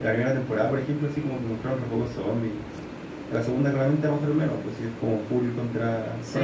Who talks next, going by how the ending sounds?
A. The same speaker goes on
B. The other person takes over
B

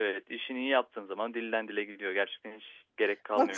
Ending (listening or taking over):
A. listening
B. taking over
B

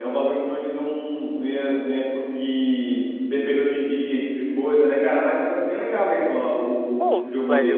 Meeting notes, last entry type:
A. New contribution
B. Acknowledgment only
A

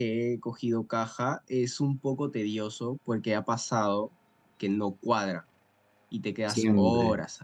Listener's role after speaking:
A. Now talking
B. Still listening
A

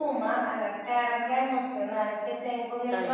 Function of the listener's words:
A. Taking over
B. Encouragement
B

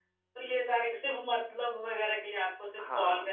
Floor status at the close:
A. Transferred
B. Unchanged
B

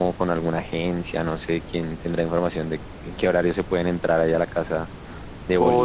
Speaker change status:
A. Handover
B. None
A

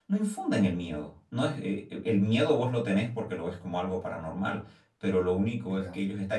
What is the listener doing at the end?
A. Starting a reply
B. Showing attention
B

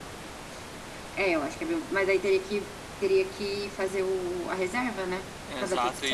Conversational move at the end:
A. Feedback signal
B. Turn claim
B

